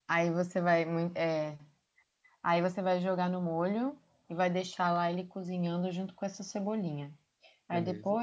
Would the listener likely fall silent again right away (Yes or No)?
Yes